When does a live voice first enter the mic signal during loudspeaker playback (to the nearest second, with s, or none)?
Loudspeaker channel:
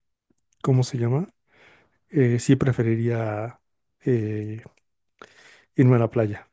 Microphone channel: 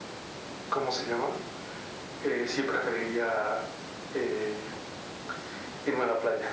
none